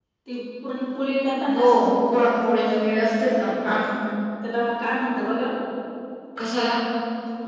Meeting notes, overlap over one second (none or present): none